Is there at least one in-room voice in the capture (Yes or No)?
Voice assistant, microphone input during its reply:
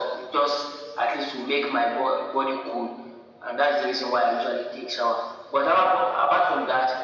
No